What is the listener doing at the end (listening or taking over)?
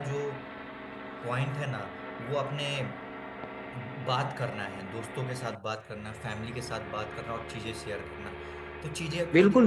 taking over